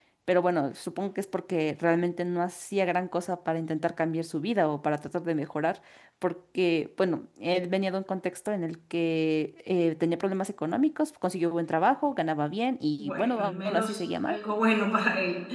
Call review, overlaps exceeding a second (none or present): present